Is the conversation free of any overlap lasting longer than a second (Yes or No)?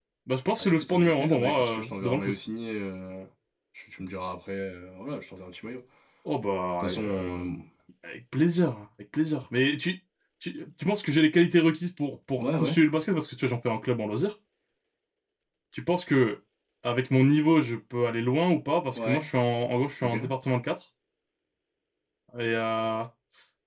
No